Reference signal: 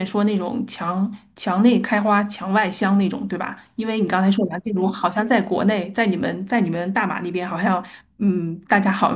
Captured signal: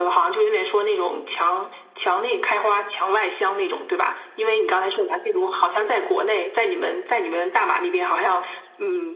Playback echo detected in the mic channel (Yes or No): Yes